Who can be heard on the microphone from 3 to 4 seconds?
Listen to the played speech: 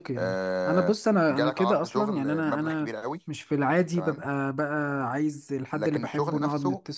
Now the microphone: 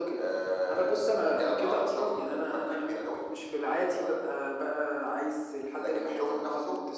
echo only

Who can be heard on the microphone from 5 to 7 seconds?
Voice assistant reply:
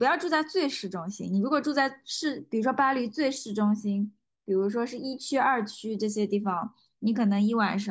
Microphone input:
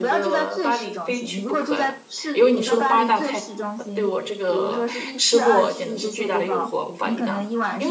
both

